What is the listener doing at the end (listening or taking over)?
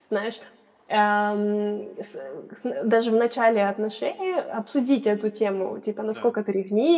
listening